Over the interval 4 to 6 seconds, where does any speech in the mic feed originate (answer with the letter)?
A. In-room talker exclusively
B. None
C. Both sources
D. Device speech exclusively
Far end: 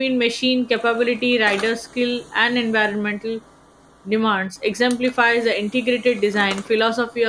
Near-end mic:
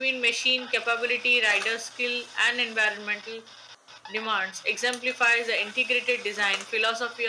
D